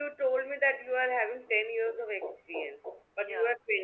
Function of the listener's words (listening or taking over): listening